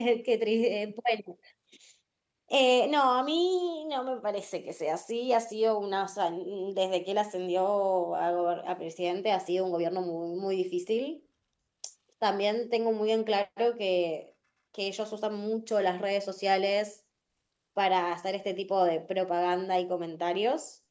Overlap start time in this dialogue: none

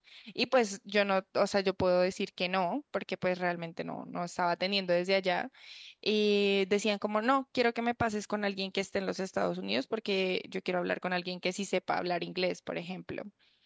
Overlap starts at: none

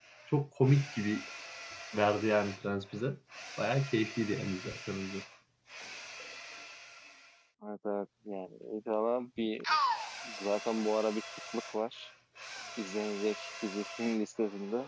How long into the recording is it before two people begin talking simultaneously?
none

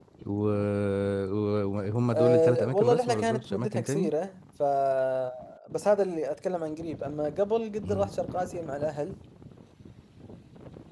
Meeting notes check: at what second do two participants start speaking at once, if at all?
2 s

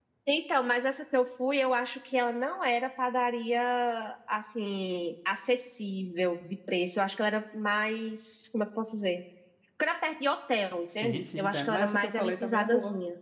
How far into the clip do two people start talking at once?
11 s

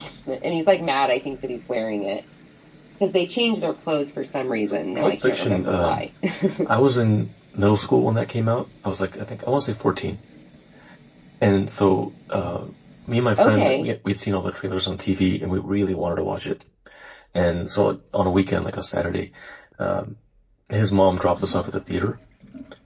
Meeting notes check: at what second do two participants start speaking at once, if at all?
5 s

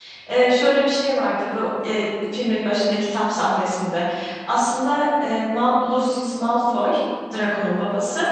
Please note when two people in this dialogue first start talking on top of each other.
none

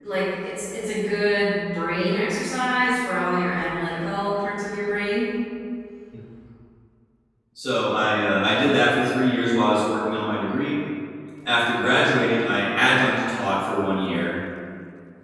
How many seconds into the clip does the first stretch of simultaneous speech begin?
none

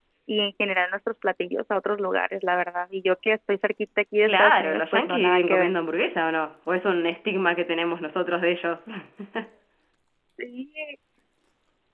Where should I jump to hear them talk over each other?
4 s

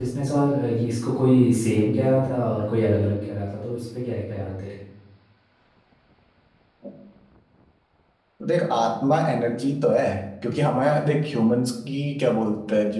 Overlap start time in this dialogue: none

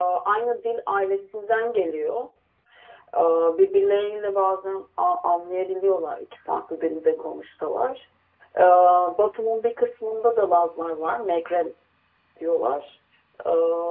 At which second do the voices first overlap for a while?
none

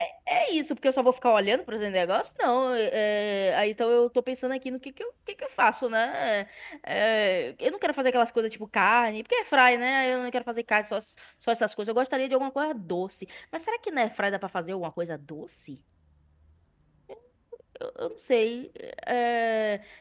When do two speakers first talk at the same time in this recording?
none

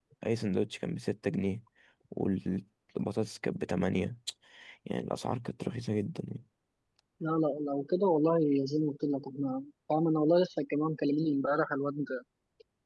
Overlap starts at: none

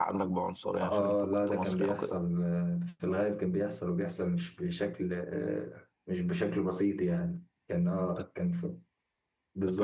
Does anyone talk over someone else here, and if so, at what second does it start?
1 s

